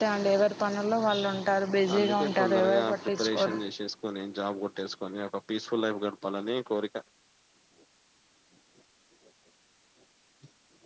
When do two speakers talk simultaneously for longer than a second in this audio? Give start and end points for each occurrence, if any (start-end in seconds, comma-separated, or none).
2.0-3.6